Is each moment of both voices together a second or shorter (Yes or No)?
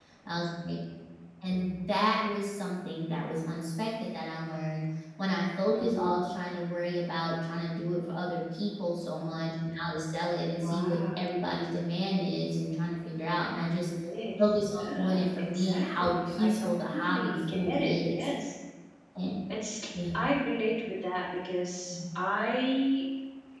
No